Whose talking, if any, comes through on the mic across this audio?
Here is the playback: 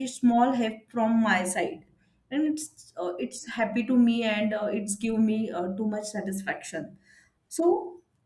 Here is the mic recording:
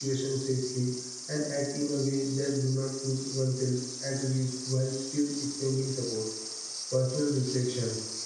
user only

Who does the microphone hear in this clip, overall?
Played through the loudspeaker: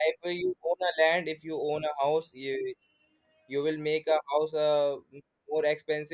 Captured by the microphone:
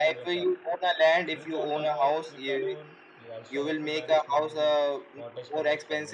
both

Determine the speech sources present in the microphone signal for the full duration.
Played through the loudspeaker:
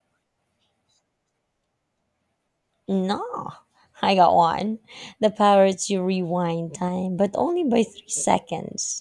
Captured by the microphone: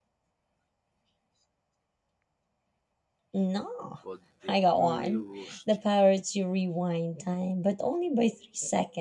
both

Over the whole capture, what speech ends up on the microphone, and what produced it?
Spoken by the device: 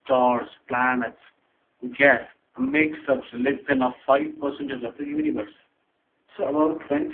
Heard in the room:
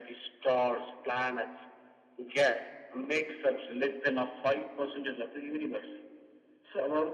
echo only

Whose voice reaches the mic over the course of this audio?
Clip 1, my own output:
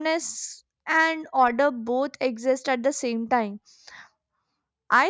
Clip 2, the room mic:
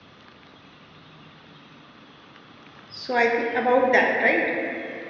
user only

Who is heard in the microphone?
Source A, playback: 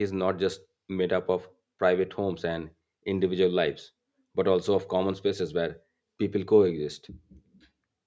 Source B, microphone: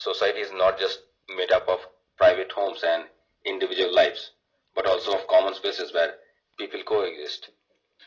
echo only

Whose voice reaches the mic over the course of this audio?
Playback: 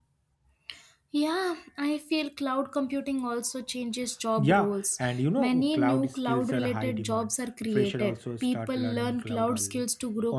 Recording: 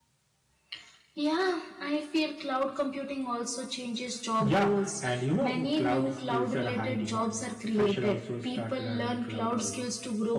echo only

